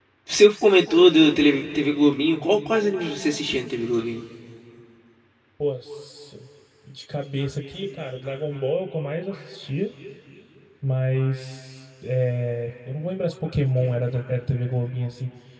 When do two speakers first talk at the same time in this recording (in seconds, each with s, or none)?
none